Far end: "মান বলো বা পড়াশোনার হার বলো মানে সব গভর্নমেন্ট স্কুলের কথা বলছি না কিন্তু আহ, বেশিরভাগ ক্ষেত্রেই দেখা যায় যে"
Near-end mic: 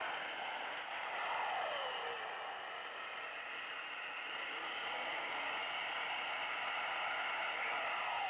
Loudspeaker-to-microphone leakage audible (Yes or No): No